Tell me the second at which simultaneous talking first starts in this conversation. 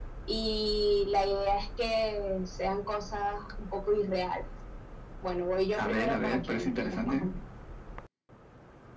5.7 s

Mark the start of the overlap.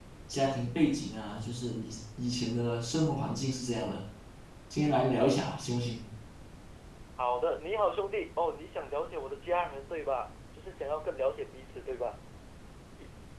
none

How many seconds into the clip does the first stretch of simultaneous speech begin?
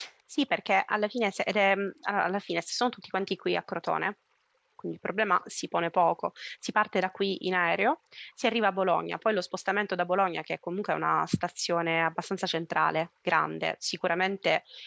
none

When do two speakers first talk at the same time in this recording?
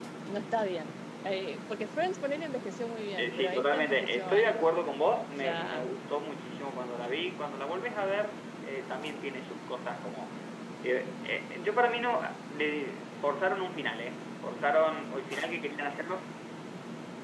3.2 s

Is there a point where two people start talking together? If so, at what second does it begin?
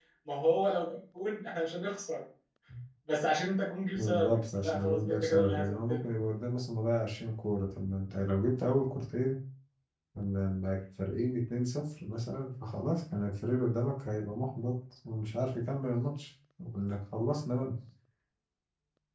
4.0 s

